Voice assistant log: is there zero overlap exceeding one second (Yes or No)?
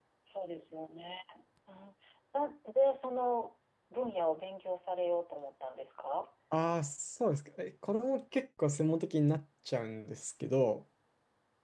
Yes